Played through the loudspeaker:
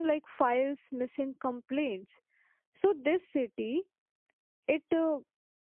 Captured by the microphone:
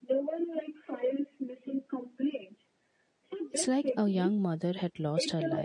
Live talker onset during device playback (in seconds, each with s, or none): 3.5 s